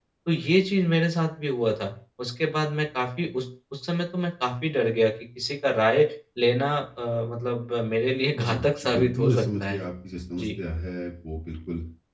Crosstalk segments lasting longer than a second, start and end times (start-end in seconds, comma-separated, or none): 8.4-9.8